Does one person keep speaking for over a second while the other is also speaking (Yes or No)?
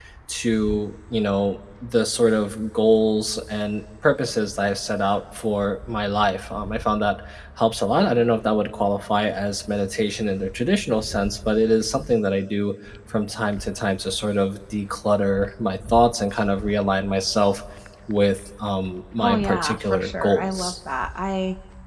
Yes